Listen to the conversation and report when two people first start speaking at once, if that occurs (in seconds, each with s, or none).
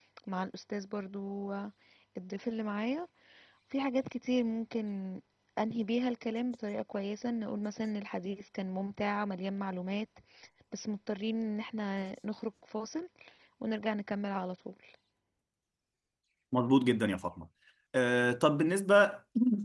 none